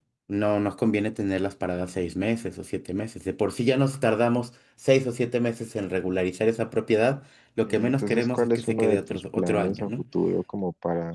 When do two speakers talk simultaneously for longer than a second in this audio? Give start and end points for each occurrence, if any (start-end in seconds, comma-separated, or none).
7.6-9.9